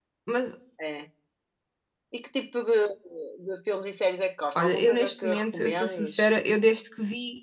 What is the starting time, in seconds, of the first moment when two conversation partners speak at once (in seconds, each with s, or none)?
4.5 s